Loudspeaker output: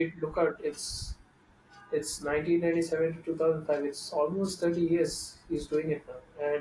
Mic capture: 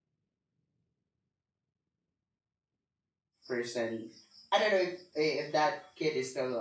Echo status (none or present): none